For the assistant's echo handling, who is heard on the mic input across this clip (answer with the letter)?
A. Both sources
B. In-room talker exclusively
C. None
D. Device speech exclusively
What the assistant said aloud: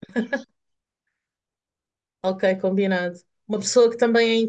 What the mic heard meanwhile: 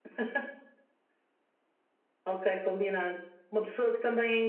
D